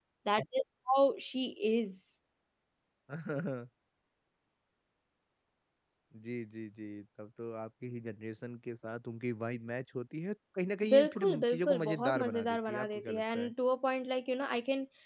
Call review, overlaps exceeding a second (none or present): present